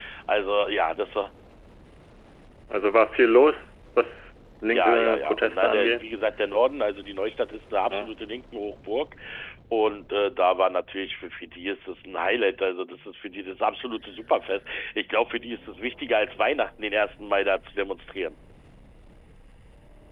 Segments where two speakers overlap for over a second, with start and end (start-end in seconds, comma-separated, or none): 4.7-6.0